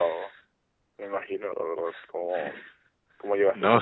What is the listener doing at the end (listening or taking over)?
taking over